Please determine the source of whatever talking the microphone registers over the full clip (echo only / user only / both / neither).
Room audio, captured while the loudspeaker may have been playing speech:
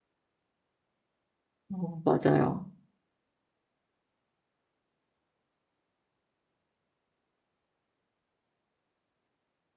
user only